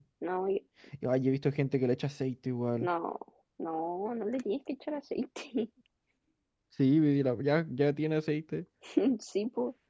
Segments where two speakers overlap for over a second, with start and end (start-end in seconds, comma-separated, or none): none